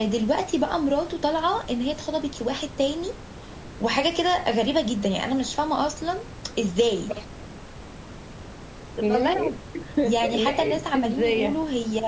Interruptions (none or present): present